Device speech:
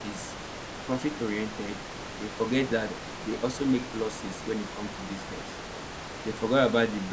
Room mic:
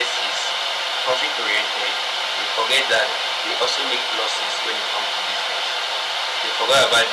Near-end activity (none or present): none